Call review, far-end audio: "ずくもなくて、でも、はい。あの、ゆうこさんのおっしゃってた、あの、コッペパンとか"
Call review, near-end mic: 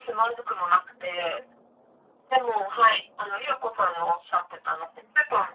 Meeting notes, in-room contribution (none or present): none